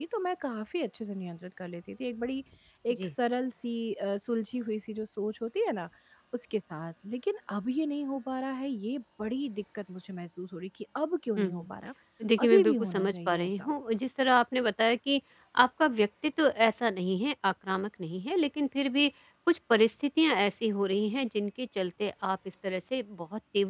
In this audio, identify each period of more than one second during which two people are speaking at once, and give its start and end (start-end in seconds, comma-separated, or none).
12.4-13.7